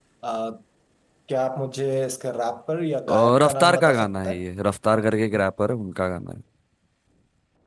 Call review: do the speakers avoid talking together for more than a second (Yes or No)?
No